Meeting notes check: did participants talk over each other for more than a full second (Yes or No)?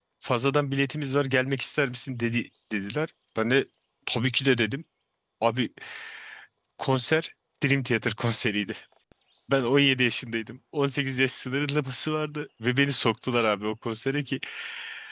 No